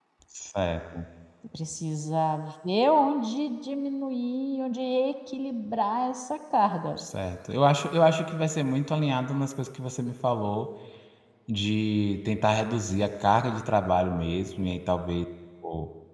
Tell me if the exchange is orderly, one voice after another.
Yes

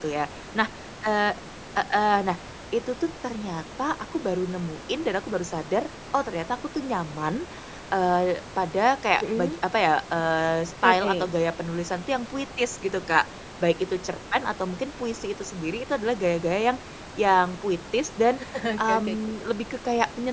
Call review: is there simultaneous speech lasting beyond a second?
No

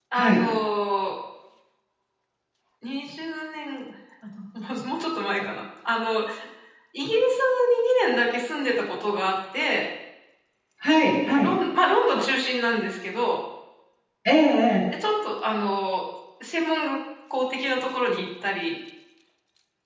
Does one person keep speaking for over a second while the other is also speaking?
No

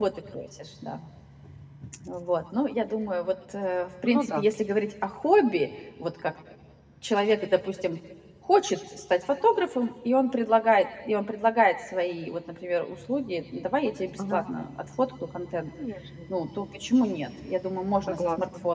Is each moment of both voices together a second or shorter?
Yes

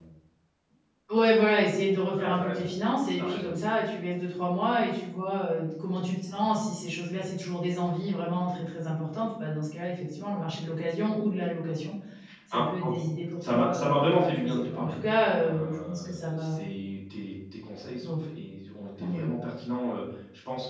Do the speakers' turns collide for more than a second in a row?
Yes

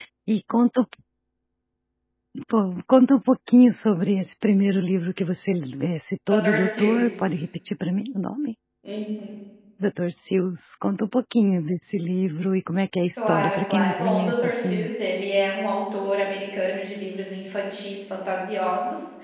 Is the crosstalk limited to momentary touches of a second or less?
No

